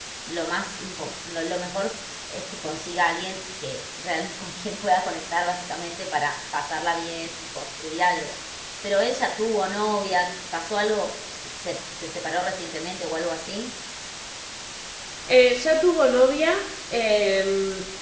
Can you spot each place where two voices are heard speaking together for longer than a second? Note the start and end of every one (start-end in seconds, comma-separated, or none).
none